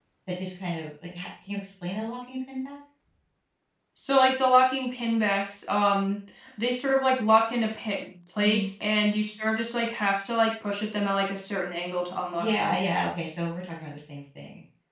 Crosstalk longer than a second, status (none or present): none